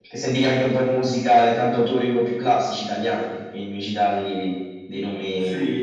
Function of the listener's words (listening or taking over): taking over